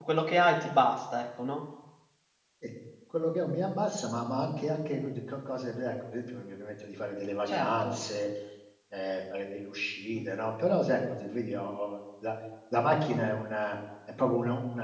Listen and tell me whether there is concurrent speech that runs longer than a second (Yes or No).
No